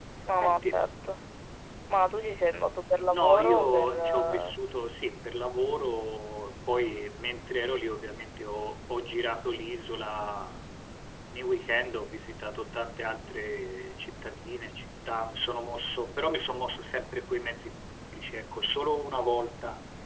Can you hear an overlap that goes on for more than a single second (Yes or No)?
Yes